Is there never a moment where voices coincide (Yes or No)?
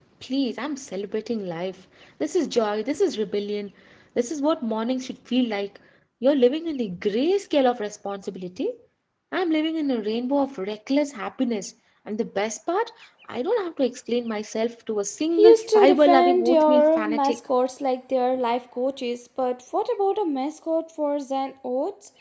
No